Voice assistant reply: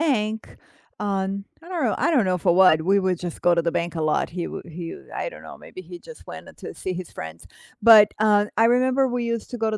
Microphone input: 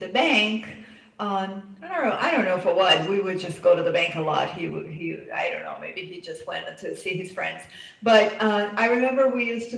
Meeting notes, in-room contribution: none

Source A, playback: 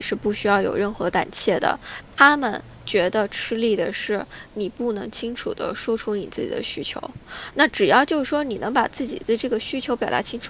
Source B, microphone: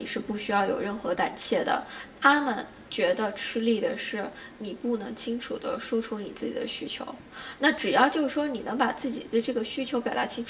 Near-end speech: none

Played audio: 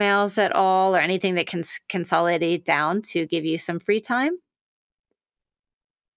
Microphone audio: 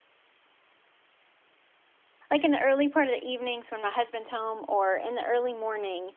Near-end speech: present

